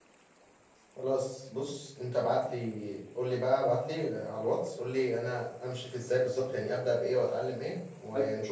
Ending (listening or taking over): taking over